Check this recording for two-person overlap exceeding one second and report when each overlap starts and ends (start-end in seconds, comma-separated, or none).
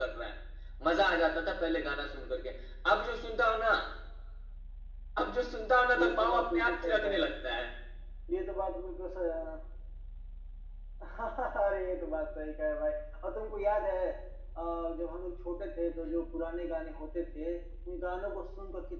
6.0-7.3